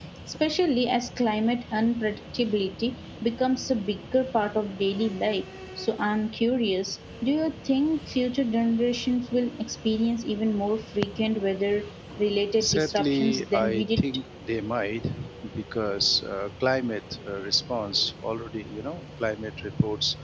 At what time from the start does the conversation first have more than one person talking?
12.6 s

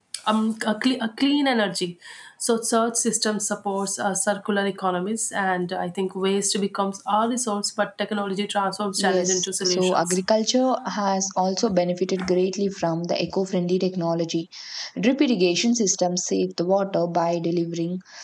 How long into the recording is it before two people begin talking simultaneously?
9.0 s

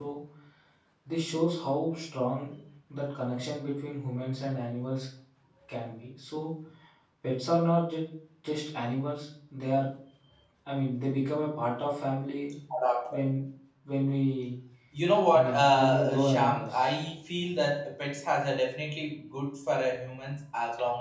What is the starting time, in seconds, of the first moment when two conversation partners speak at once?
15.3 s

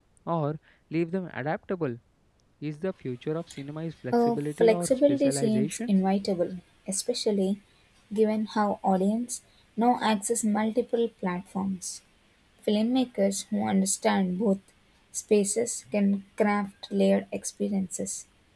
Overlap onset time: 4.1 s

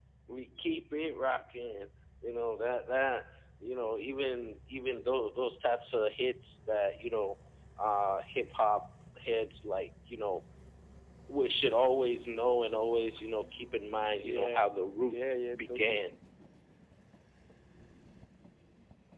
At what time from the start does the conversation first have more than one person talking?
14.2 s

